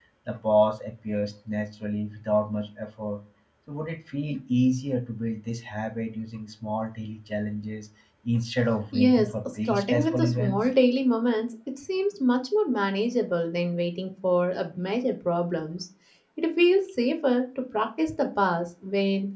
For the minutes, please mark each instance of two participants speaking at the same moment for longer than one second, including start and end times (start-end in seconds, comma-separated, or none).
8.9-10.6